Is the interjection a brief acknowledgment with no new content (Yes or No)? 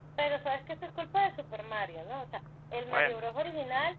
Yes